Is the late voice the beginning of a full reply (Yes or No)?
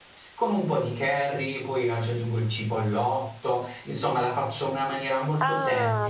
Yes